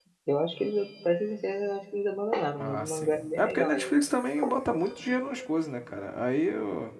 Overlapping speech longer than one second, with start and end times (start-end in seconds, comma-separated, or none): 2.6-3.9